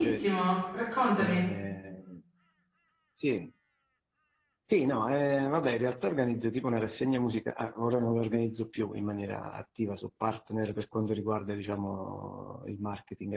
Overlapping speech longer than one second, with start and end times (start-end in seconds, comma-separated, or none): none